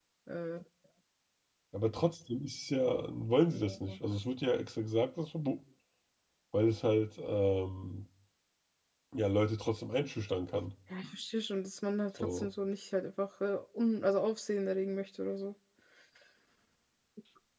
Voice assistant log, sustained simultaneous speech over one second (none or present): none